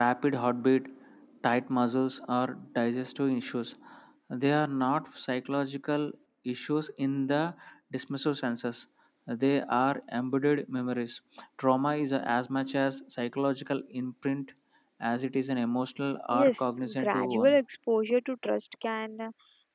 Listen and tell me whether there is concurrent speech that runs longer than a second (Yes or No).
Yes